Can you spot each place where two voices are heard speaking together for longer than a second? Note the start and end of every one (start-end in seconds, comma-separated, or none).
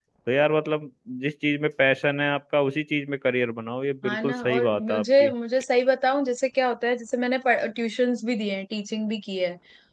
4.0-5.3